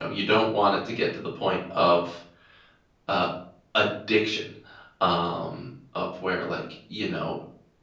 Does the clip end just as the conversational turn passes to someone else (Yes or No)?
No